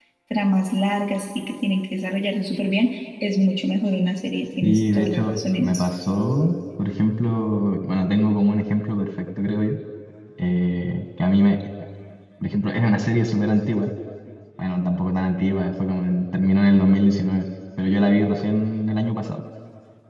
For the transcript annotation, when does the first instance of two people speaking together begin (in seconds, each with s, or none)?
4.6 s